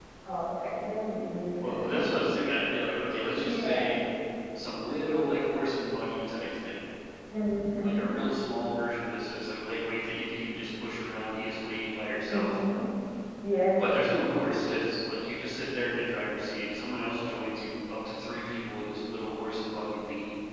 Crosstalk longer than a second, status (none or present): none